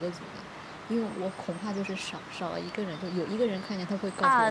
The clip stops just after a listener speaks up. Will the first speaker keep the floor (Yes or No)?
No